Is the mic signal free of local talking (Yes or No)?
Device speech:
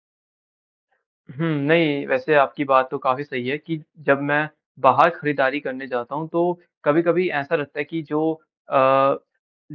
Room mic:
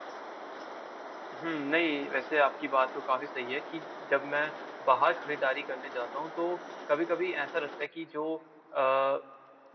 Yes